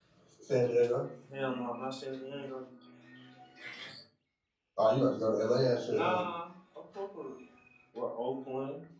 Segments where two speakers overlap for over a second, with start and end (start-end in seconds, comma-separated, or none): none